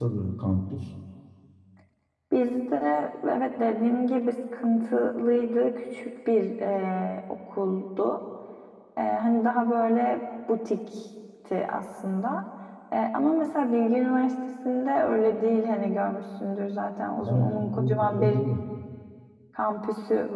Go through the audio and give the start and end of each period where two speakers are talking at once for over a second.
17.2-18.4

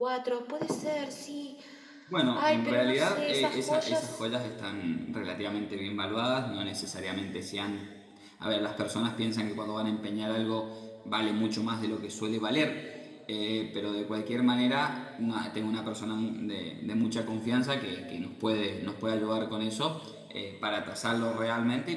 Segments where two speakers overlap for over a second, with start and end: 2.4-4.2

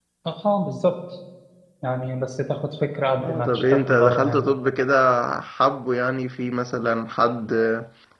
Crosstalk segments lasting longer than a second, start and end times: 3.2-4.4

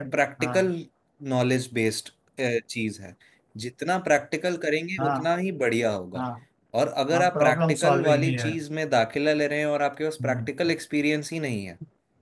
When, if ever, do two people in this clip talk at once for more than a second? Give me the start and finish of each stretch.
7.1-8.5

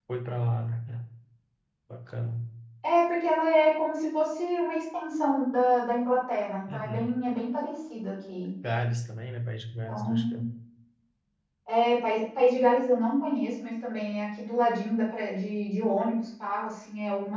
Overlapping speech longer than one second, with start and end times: none

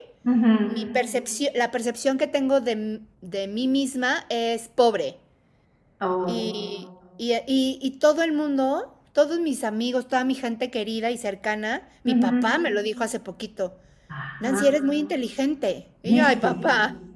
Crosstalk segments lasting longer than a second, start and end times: none

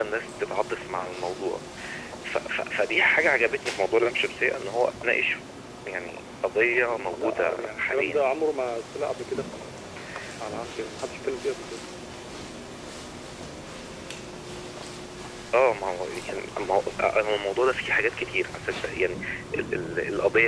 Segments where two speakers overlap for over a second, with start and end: 6.9-8.2

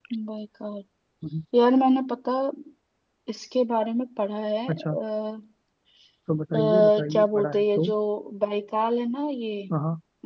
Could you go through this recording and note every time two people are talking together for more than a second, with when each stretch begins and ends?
6.6-7.9

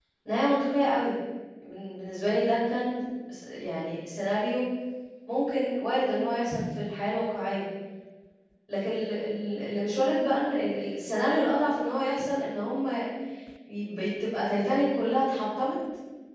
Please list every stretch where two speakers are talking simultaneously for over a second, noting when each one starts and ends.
none

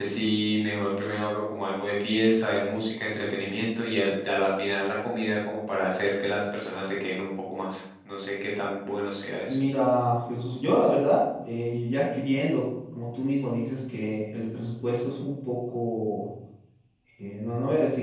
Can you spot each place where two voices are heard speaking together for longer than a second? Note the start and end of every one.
none

